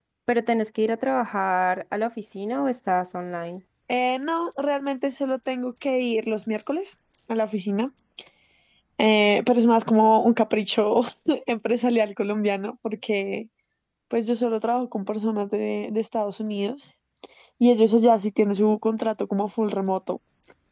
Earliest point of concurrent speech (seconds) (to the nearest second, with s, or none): none